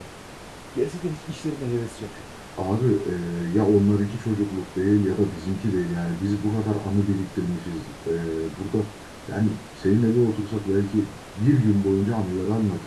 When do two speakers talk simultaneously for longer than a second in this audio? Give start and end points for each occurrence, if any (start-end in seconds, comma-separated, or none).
none